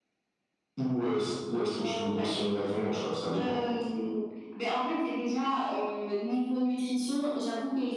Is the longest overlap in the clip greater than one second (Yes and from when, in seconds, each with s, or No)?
No